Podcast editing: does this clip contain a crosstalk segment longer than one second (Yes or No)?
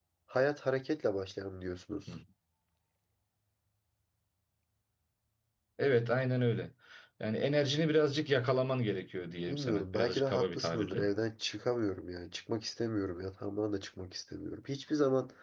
Yes